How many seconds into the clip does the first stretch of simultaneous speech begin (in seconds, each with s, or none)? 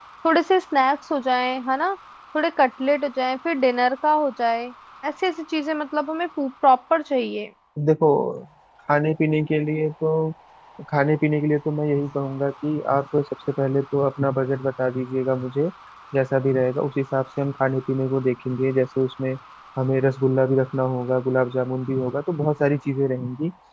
none